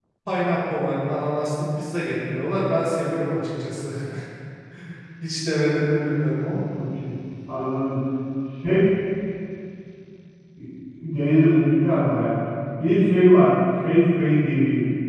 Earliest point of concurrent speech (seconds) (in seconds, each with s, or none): none